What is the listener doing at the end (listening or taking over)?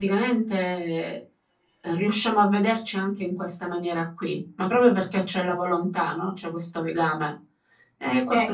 taking over